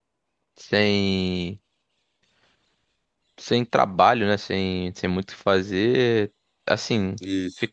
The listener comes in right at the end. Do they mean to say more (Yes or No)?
No